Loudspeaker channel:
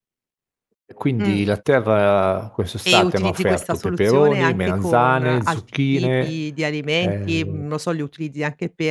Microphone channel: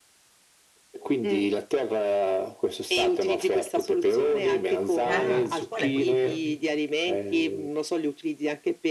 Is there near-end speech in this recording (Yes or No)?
Yes